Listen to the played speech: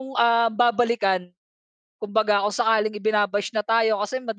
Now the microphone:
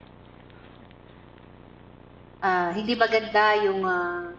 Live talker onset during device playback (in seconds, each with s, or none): 2.4 s